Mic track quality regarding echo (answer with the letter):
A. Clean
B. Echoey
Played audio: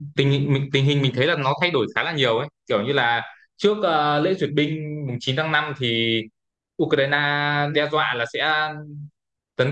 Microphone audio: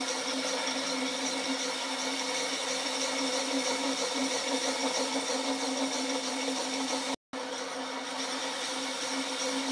A